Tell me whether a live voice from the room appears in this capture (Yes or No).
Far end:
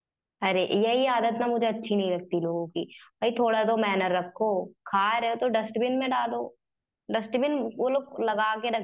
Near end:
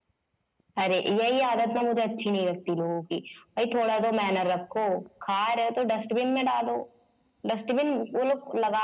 No